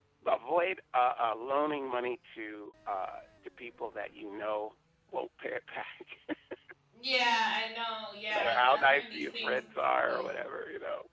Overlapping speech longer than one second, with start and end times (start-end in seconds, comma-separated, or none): 8.3-9.6